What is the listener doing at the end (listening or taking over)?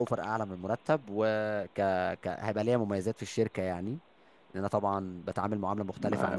taking over